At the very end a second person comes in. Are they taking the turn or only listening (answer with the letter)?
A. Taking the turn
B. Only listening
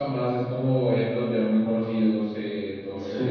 A